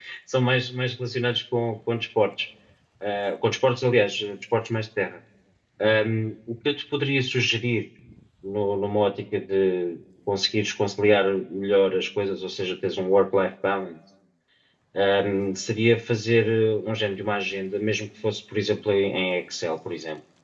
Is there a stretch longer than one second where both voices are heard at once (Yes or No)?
No